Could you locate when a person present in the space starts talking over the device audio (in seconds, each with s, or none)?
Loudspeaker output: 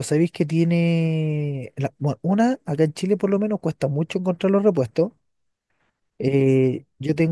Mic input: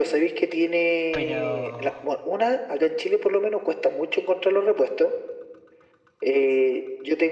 1.1 s